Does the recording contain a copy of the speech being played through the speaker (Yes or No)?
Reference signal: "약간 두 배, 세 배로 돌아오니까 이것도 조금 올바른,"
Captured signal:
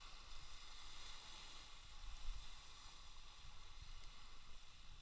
No